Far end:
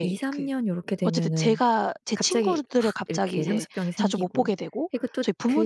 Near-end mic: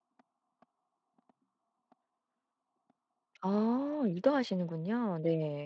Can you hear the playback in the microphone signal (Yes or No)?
No